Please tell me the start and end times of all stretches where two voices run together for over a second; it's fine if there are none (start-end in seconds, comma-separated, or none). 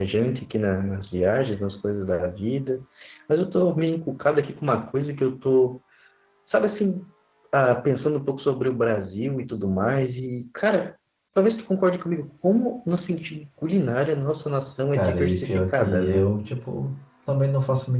14.9-16.2